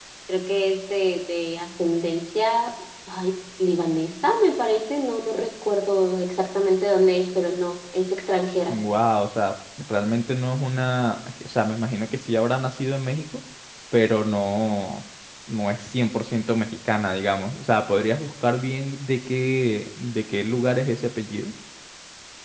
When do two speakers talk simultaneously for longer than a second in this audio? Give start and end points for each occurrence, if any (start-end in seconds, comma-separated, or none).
none